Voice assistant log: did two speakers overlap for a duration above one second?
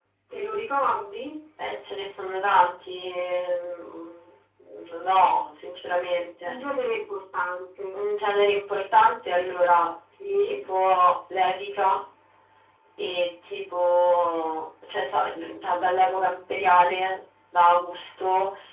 No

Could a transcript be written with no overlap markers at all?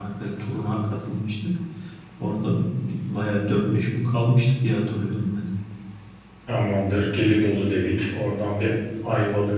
Yes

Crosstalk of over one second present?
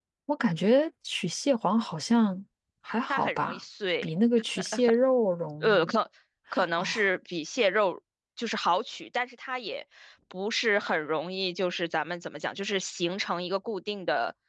No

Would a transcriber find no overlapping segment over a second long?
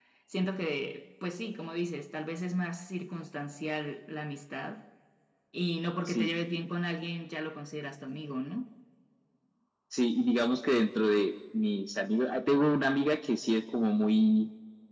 Yes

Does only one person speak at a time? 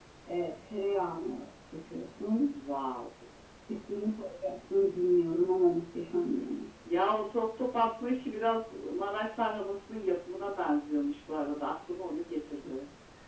Yes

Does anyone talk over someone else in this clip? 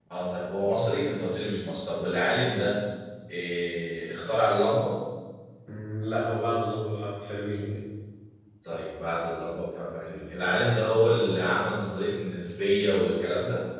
No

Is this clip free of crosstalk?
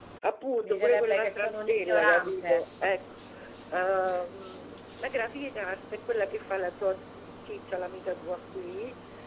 No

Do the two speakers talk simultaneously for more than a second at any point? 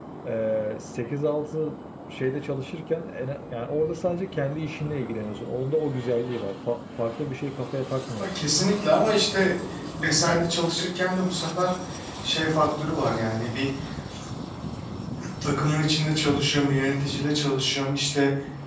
No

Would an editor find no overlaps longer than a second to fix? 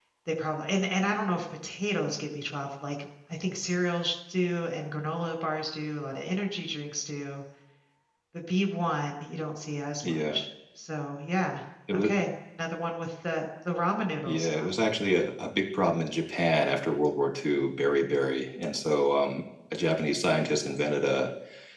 Yes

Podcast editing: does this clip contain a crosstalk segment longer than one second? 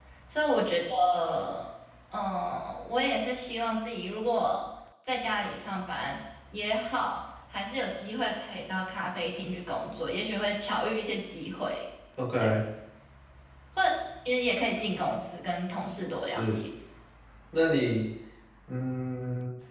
No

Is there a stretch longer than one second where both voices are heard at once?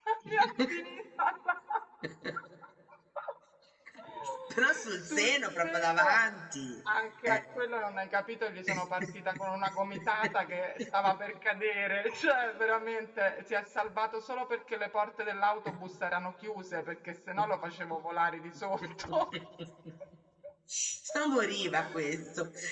Yes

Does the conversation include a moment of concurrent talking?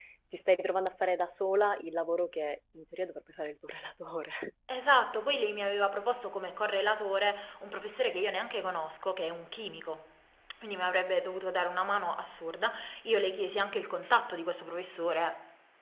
No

